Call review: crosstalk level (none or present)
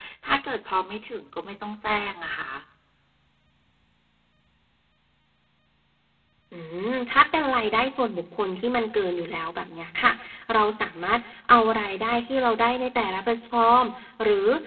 none